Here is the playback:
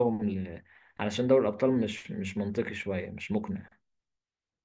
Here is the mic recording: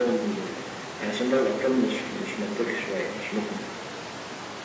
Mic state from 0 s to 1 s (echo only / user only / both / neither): echo only